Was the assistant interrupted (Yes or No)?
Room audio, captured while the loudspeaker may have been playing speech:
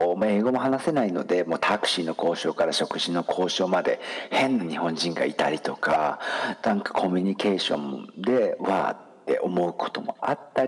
No